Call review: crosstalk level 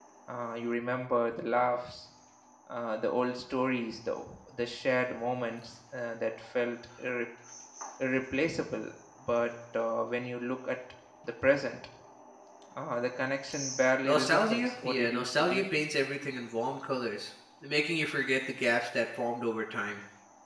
present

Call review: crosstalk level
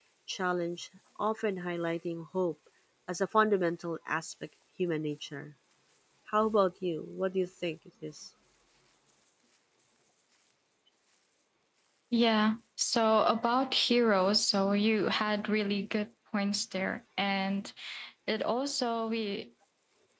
none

